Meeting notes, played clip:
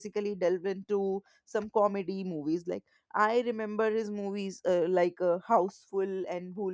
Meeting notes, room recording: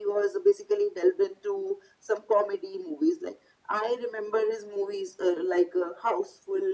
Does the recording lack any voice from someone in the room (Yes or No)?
Yes